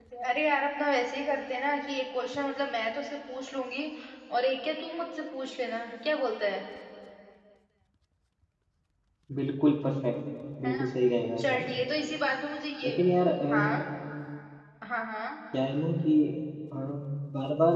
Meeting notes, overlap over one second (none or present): none